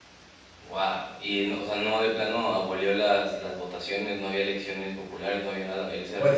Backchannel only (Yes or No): No